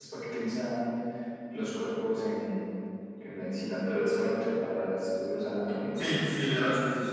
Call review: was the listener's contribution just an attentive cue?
No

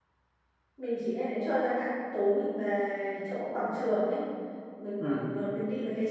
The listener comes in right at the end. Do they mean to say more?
No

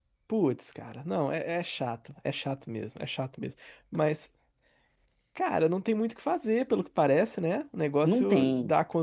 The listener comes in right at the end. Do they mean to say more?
No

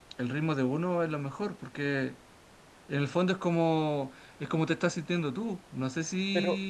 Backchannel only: No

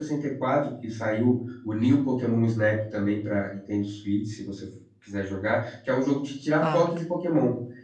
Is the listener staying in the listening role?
Yes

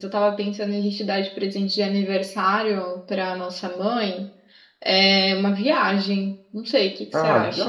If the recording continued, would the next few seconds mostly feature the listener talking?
Yes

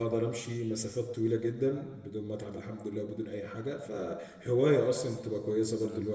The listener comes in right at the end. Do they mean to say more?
Yes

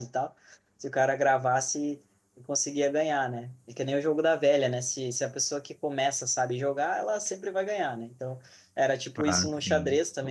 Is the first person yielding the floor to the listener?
No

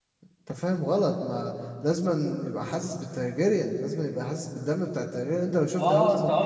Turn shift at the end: Yes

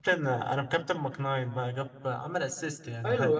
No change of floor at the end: No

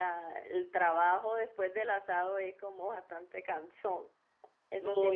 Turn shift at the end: Yes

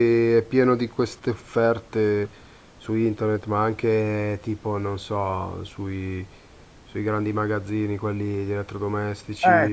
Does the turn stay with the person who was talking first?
No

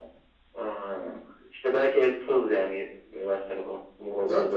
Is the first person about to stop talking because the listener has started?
Yes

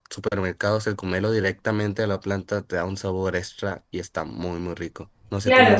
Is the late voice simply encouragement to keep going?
No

